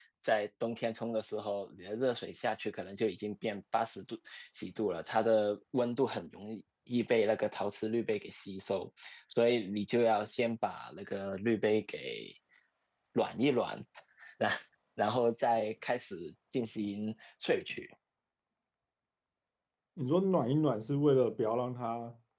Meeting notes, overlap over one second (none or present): none